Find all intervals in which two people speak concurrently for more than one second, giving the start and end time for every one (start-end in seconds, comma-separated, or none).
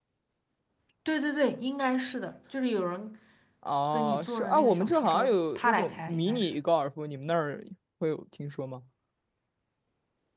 3.9-6.5